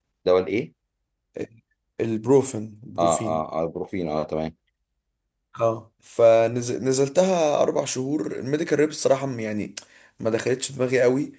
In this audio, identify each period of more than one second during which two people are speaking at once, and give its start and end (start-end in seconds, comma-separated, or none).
none